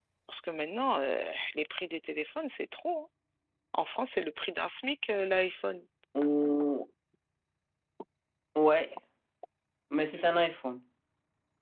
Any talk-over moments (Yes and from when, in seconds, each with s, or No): No